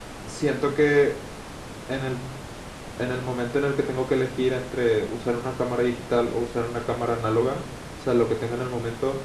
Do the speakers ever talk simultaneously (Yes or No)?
No